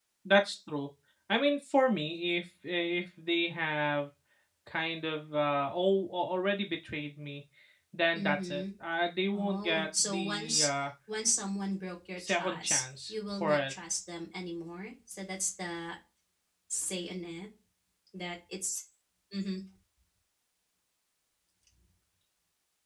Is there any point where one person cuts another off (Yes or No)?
Yes